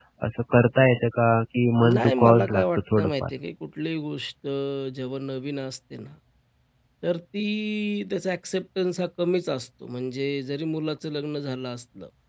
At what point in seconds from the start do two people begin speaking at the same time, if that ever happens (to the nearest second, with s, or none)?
2 s